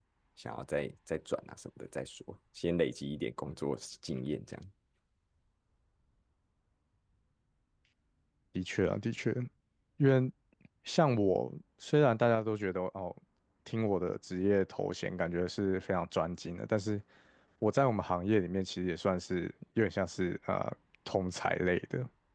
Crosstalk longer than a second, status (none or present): none